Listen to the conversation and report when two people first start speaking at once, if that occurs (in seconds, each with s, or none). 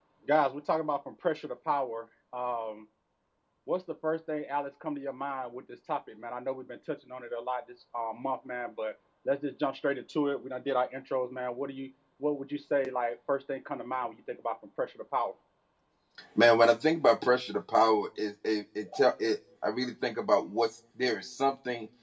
none